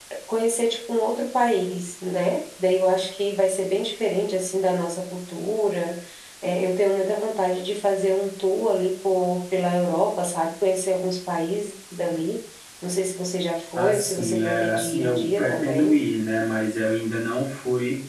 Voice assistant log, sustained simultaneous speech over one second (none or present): present